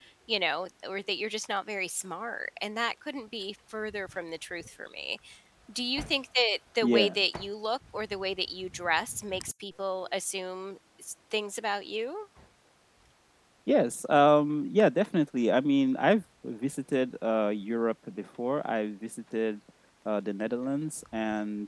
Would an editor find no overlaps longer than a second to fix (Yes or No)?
Yes